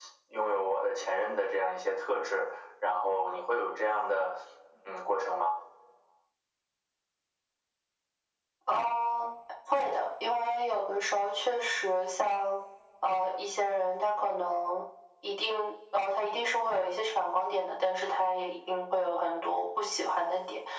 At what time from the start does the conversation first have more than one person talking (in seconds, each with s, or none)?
none